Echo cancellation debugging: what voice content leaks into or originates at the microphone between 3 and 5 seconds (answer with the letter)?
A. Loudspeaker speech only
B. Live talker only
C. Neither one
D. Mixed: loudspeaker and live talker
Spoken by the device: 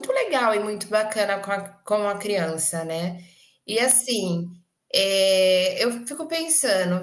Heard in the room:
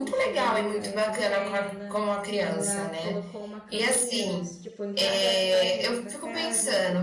D